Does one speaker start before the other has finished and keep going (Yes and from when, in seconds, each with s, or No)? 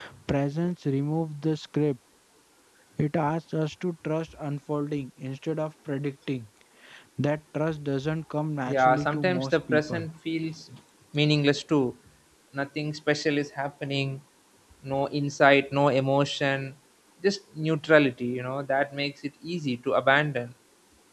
Yes, from 8.7 s